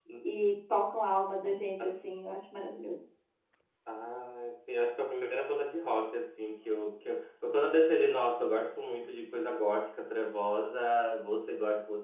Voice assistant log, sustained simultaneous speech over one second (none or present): none